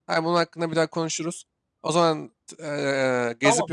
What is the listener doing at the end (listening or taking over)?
taking over